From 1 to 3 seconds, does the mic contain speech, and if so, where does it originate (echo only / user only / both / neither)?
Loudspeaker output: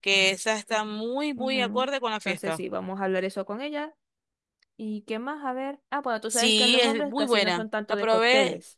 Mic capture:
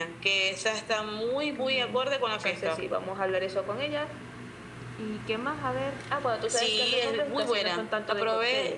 echo only